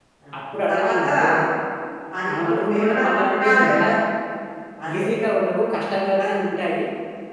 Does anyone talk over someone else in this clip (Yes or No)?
Yes